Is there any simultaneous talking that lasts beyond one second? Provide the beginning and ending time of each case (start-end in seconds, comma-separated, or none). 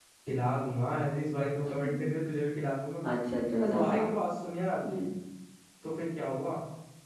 none